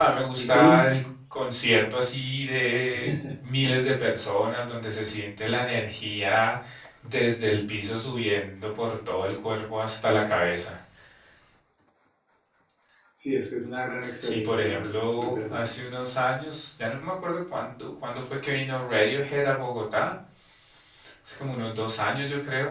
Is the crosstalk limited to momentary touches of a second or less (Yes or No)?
No